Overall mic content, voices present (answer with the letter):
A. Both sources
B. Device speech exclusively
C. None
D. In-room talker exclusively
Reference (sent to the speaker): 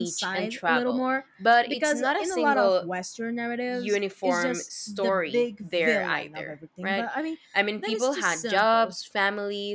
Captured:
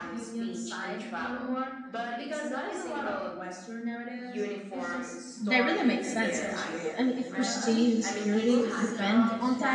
A